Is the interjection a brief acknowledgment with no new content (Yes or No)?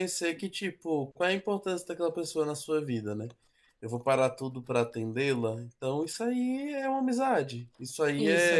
Yes